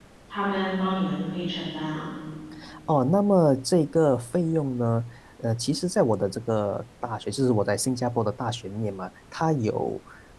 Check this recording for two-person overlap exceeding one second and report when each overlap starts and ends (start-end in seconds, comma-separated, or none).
none